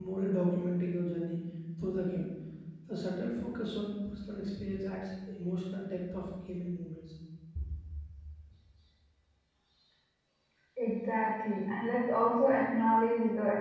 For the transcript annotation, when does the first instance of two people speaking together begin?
none

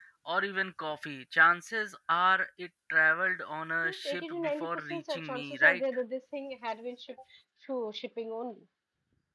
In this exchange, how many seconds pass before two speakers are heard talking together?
3.8 s

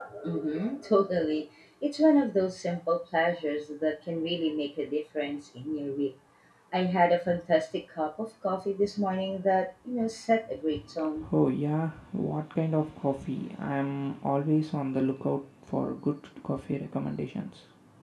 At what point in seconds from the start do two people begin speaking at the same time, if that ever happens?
none

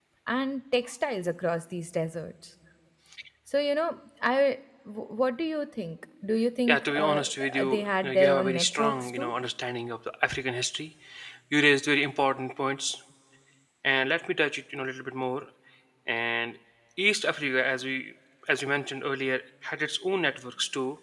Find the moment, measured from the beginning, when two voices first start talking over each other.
6.7 s

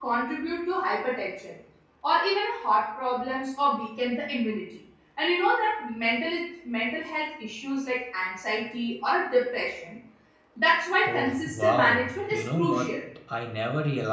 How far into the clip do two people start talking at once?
11.1 s

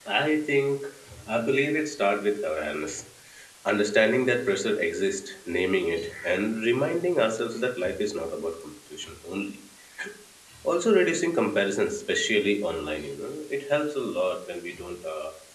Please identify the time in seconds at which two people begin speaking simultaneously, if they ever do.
none

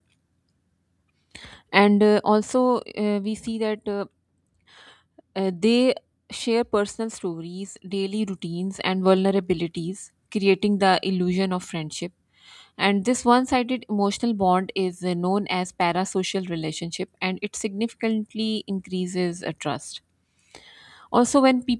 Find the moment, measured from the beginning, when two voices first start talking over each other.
none

